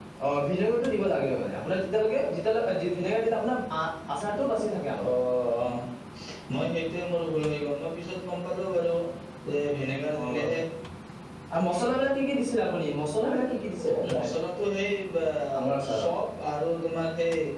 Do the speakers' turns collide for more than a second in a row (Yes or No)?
No